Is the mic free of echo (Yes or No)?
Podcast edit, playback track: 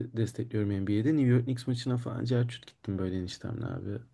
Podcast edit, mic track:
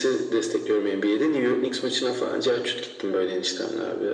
No